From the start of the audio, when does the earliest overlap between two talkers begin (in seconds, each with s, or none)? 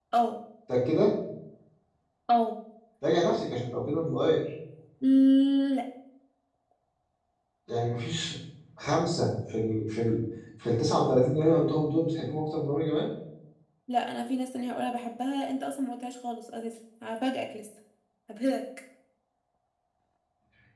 none